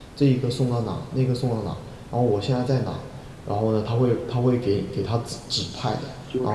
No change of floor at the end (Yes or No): No